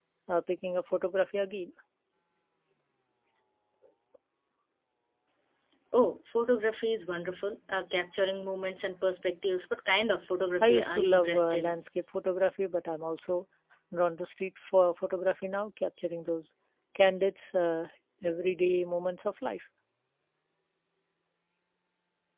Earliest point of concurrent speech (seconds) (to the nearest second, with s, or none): 11 s